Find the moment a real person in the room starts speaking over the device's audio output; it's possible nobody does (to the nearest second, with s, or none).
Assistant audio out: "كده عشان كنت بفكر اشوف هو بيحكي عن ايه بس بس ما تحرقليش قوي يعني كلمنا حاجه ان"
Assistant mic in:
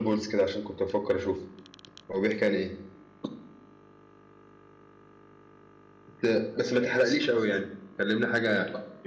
none